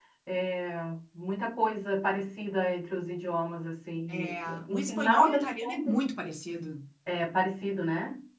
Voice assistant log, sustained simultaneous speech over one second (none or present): present